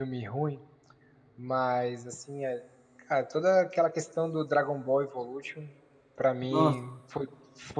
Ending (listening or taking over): listening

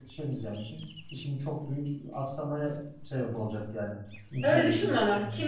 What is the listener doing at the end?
taking over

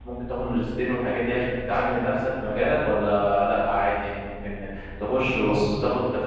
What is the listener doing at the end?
listening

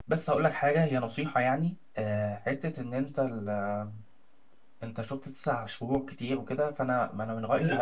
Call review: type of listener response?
taking over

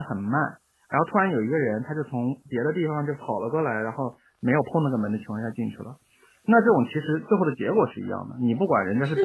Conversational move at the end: taking over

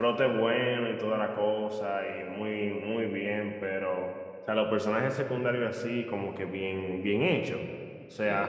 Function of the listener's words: listening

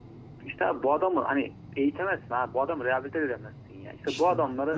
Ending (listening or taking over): taking over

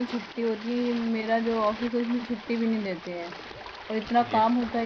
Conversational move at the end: listening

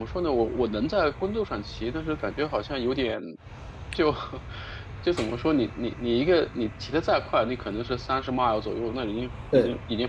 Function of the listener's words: listening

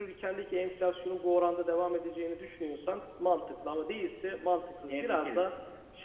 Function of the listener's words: listening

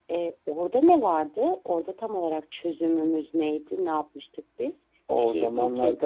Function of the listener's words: taking over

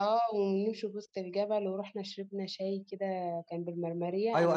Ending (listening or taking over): taking over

